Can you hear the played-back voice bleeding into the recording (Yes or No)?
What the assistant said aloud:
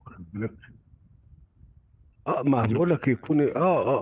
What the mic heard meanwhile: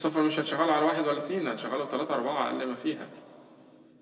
No